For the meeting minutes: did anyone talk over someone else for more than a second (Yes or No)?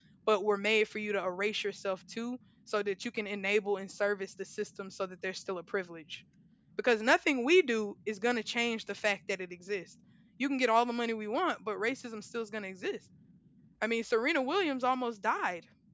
No